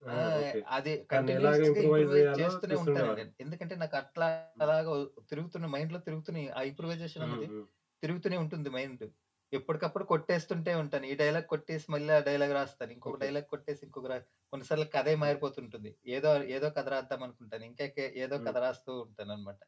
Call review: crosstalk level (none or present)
present